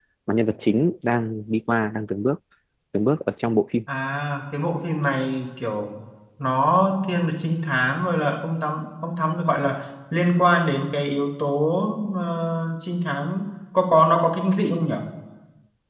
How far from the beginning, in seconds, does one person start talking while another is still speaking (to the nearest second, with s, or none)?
none